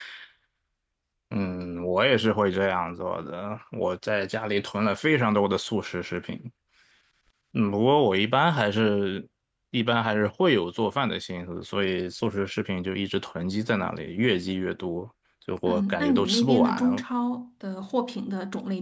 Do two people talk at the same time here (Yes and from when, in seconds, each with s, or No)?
Yes, from 15.7 s